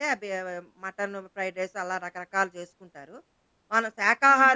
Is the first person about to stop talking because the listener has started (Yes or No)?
No